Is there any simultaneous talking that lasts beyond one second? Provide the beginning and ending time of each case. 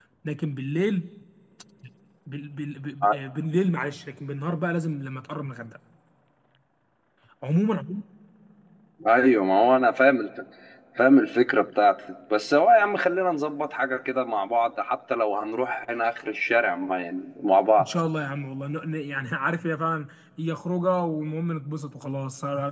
none

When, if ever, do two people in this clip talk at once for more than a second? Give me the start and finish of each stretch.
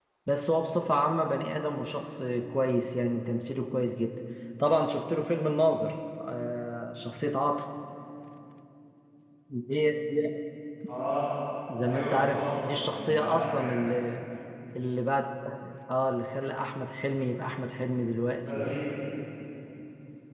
11.8-13.7

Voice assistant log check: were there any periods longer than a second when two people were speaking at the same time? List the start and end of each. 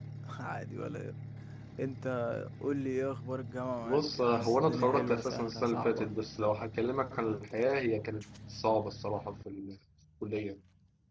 3.8-6.1

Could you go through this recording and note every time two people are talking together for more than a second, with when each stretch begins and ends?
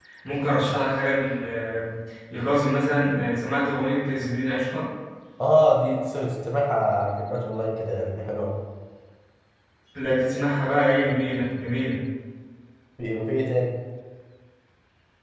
none

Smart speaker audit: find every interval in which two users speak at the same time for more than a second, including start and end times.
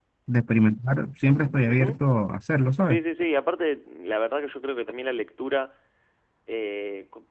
none

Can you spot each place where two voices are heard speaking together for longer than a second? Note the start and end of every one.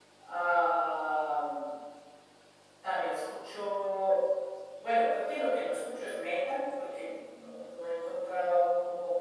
none

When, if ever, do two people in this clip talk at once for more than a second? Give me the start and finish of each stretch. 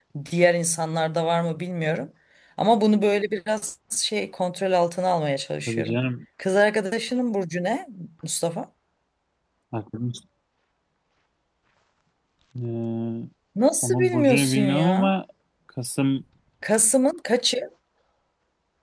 13.8-15.1

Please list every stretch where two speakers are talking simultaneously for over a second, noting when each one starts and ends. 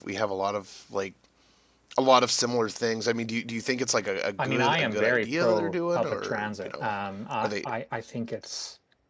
4.4-6.9

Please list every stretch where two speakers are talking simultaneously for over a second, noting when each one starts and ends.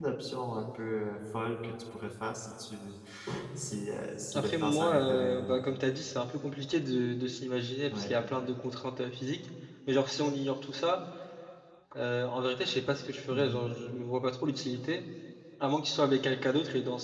4.3-5.6

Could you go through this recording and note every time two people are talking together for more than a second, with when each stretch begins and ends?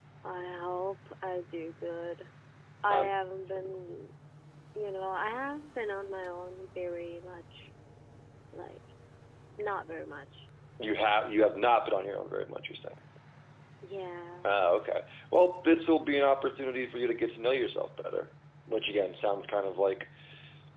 none

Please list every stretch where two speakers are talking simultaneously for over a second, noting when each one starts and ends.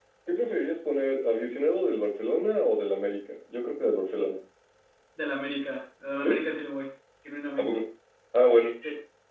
none

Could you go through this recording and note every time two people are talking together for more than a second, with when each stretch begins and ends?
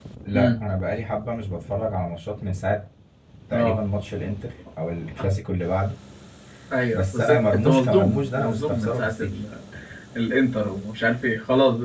6.9-9.3

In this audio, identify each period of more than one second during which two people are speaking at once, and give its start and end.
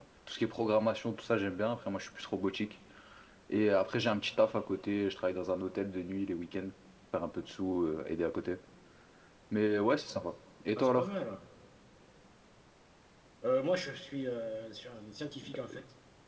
none

